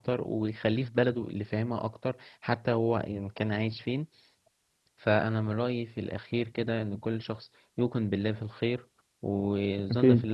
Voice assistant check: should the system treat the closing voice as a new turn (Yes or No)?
No